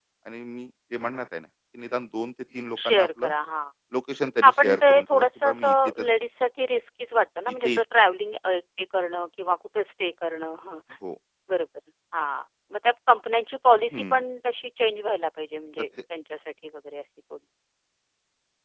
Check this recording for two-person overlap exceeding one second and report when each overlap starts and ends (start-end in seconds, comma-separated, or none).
4.4-5.7